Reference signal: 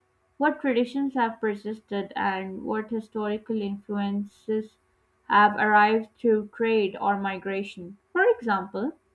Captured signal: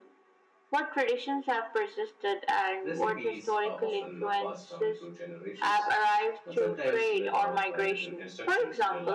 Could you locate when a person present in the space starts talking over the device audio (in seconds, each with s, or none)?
2.8 s